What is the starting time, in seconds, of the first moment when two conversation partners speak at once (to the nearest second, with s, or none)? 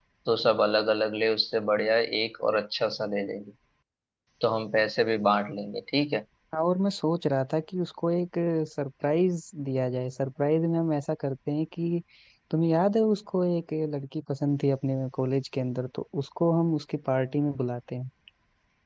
none